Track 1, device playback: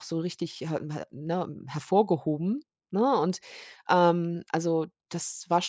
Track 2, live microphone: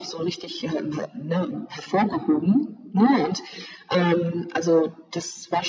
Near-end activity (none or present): none